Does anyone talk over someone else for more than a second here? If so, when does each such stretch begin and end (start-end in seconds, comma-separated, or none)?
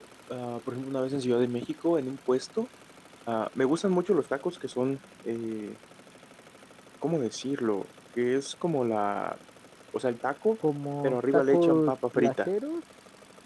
11.0-12.5